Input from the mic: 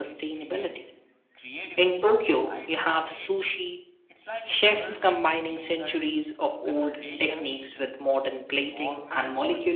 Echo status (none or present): present